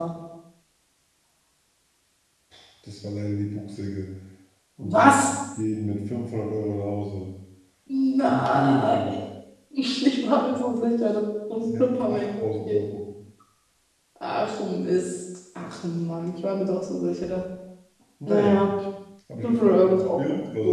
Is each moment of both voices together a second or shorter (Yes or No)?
No